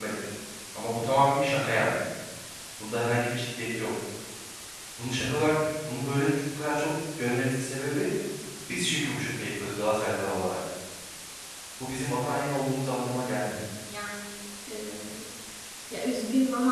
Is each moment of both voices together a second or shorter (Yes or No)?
Yes